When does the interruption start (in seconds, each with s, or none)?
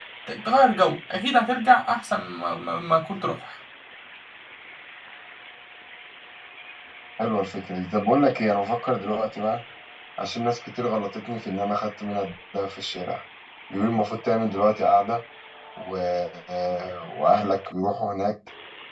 none